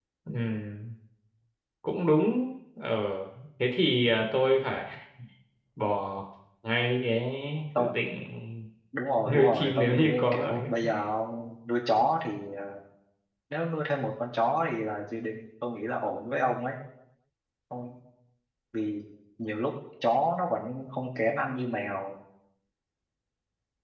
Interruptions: present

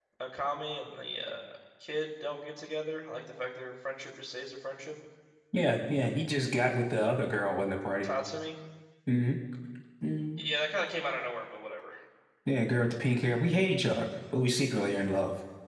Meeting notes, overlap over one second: none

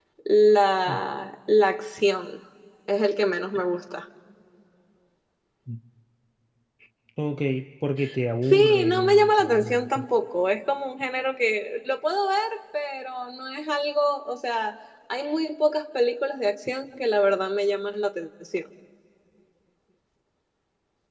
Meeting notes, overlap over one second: present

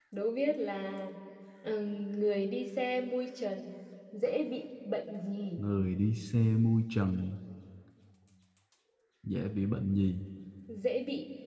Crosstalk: none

